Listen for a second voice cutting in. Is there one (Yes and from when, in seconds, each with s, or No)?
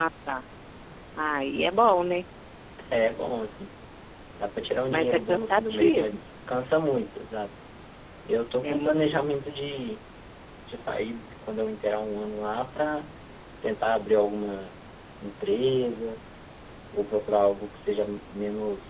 Yes, from 4.9 s